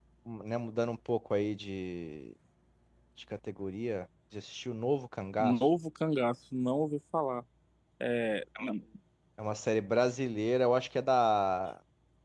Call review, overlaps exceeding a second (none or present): none